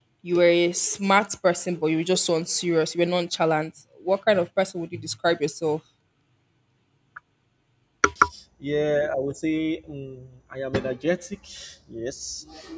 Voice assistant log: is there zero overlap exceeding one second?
Yes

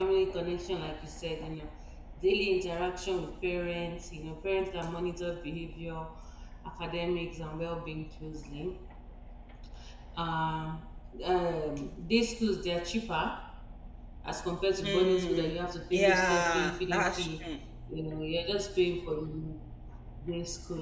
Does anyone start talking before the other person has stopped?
Yes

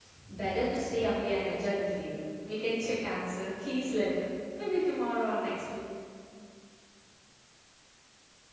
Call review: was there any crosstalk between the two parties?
No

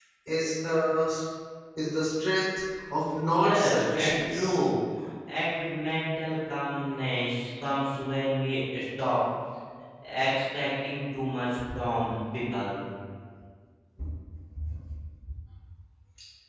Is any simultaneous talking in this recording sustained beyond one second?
Yes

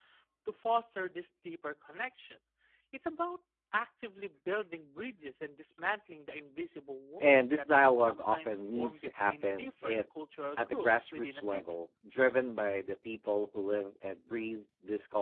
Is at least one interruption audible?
Yes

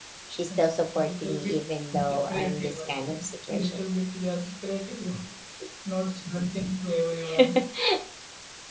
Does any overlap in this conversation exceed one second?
Yes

